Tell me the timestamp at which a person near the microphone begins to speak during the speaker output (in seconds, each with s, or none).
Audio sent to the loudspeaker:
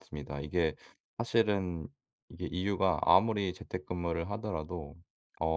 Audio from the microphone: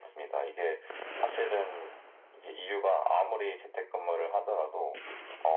none